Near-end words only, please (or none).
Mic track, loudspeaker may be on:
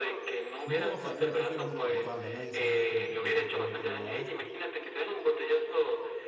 No, o sea, me pusieron una bufanda, nadie sabía como que concretamente nada de esto.